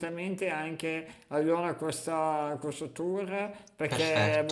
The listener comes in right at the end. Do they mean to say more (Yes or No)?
No